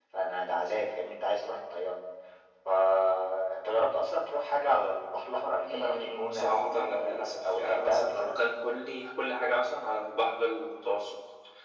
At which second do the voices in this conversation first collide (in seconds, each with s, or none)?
5.6 s